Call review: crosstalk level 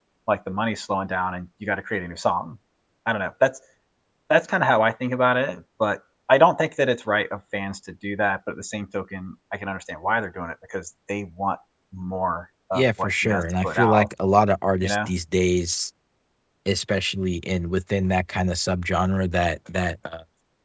present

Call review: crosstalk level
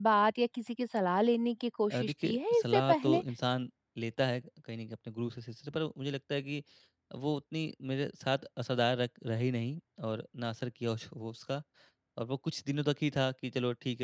present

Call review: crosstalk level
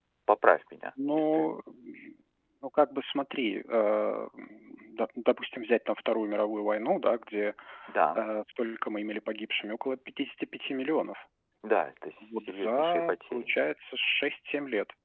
present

